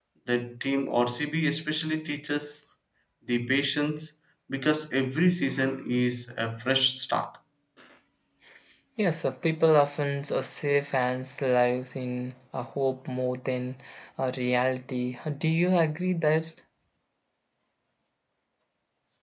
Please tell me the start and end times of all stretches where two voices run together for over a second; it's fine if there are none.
none

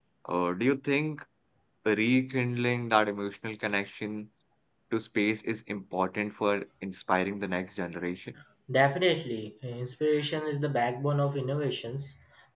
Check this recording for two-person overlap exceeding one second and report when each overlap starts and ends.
none

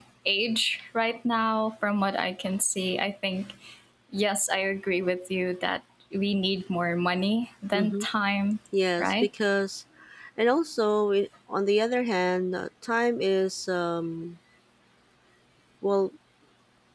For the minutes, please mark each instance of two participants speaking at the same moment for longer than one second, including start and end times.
none

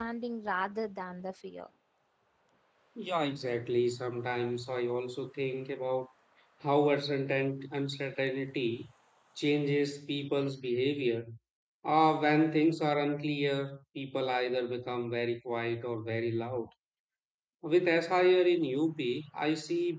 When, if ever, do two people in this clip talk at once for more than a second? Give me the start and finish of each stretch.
none

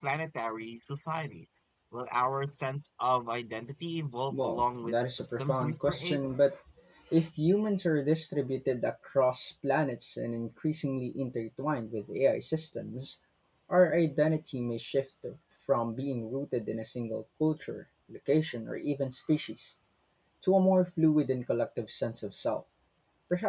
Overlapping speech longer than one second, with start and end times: 4.3-6.2

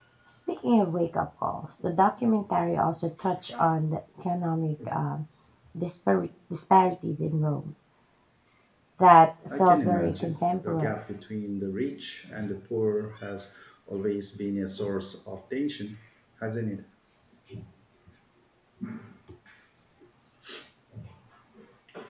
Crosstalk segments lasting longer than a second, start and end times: 9.6-11.0

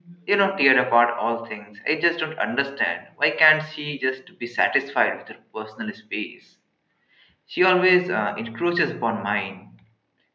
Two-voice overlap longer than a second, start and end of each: none

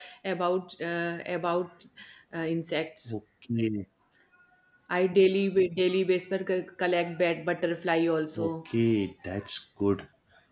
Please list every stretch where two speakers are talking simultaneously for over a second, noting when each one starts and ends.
none

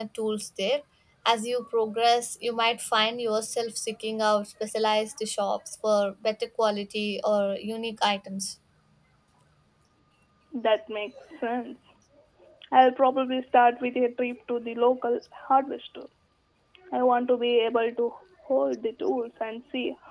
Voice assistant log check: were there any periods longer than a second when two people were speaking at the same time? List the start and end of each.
none

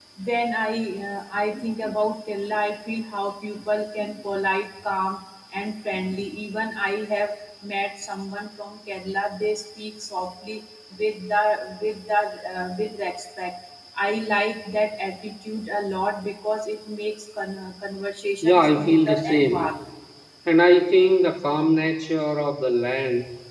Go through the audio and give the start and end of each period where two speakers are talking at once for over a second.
18.4-19.7

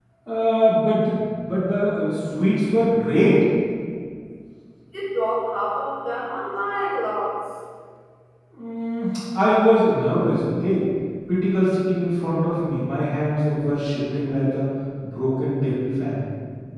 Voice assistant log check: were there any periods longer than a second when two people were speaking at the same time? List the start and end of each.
none

